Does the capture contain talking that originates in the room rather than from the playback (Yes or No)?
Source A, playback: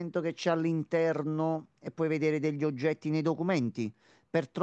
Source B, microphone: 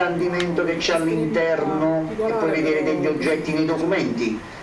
Yes